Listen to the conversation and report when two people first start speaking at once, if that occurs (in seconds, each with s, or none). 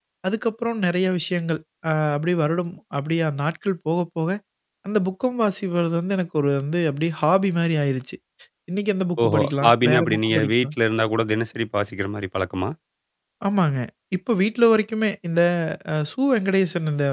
9.2 s